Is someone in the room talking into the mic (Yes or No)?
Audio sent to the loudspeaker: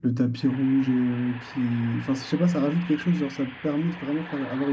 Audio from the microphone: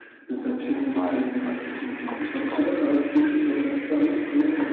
Yes